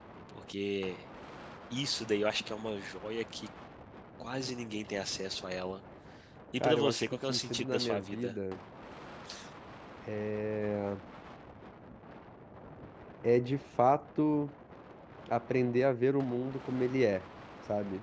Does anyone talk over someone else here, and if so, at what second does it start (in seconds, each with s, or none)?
6.6 s